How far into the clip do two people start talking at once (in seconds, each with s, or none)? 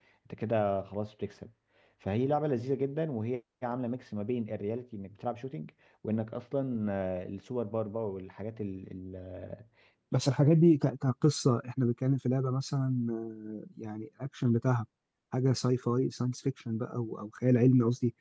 none